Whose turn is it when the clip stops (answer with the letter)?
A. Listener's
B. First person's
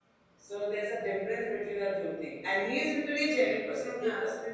B